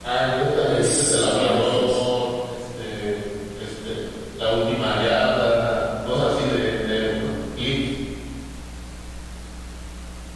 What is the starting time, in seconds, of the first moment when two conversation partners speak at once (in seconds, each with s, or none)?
0.6 s